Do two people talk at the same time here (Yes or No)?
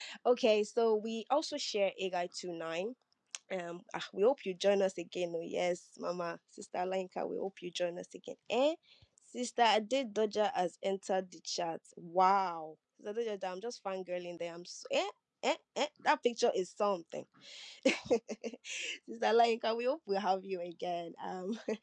No